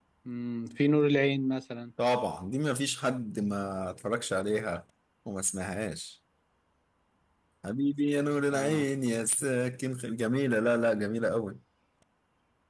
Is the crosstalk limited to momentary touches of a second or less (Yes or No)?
Yes